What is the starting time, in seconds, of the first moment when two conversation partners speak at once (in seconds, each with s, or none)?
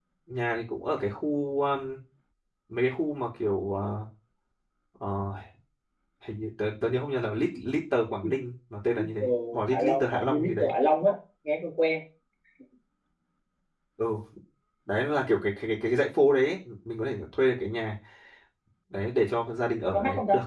9.0 s